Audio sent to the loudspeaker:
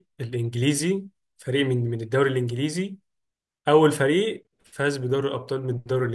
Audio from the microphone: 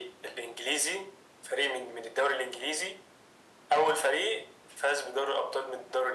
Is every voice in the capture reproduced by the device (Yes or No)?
Yes